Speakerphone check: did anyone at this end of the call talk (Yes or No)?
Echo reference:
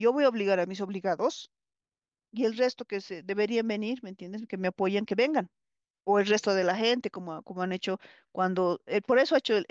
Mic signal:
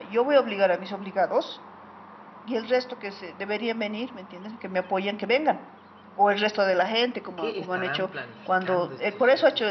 Yes